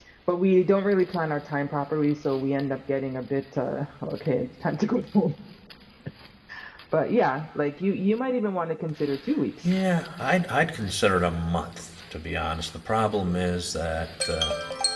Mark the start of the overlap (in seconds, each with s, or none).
none